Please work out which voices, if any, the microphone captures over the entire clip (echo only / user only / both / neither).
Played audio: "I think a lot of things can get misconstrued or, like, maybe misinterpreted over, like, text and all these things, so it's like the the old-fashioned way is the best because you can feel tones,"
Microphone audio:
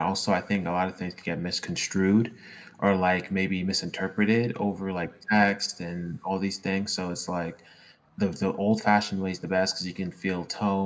echo only